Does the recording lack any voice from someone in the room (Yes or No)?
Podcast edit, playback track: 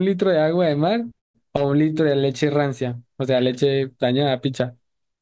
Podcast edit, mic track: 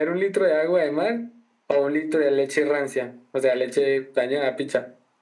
Yes